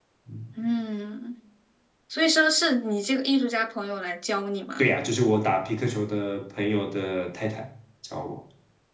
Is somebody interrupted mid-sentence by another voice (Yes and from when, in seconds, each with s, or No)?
No